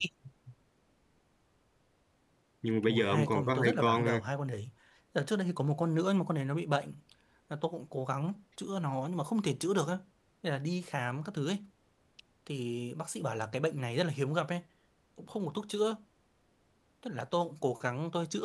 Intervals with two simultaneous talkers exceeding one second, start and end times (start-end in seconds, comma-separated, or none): 2.9-4.2